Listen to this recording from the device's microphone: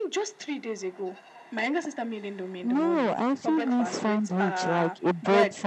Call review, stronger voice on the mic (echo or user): user